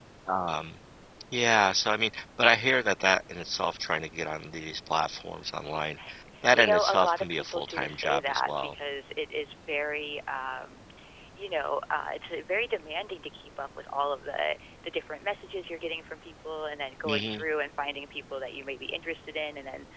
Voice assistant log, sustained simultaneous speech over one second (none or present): present